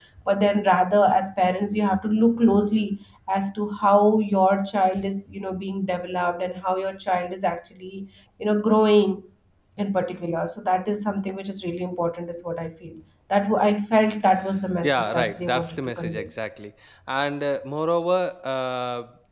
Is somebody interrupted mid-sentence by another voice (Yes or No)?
Yes